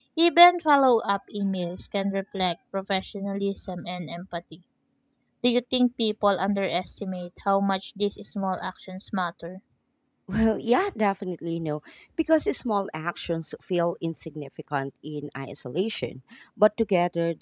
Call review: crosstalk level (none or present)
none